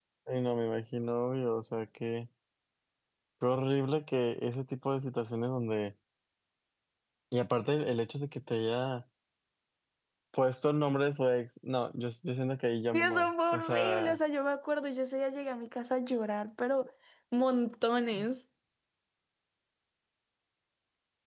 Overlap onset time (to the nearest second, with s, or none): 13 s